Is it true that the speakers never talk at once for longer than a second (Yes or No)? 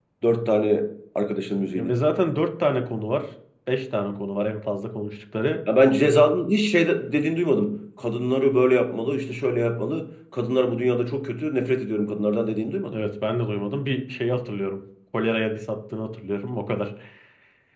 Yes